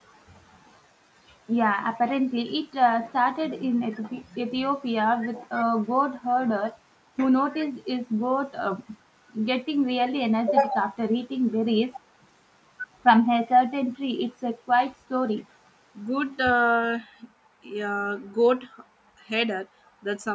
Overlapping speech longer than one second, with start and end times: none

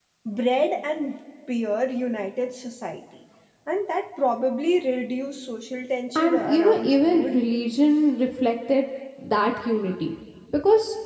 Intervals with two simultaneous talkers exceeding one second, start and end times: 6.2-7.4

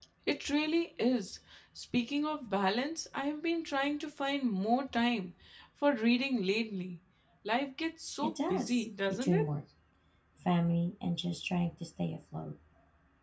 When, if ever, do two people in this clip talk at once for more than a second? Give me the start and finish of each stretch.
8.2-9.5

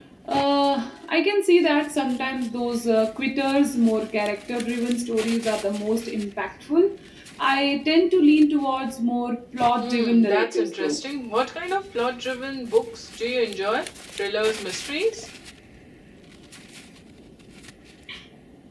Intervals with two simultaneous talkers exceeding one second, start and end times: 9.8-11.0

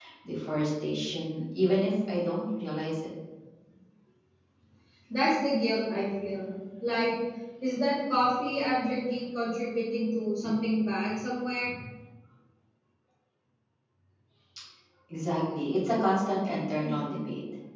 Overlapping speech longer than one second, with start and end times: none

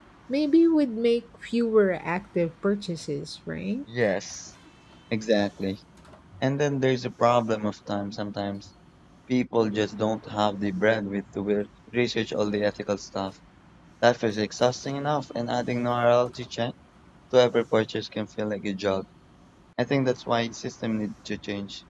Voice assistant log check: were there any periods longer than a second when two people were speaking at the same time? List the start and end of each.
none

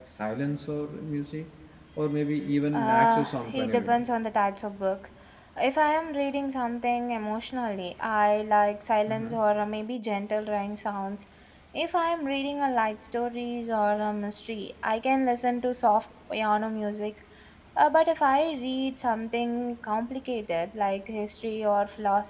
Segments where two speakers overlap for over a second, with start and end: 2.7-4.0

